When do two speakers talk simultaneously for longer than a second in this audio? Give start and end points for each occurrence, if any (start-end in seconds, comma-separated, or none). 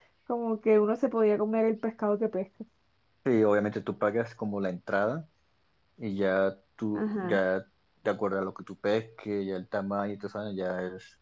none